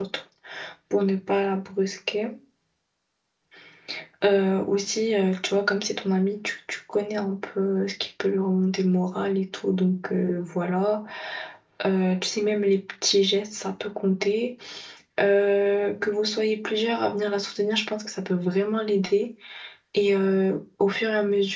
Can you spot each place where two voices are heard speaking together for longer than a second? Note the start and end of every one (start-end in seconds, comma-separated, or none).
none